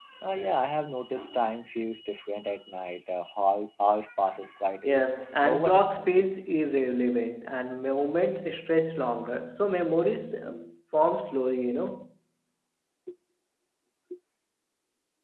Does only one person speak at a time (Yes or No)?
No